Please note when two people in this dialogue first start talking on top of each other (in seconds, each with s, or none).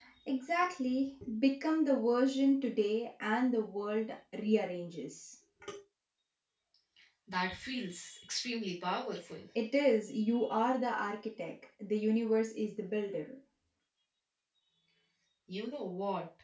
none